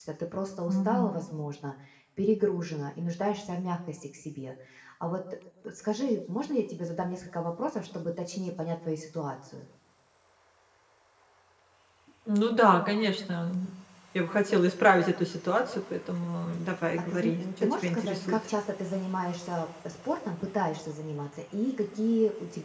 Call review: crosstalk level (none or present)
present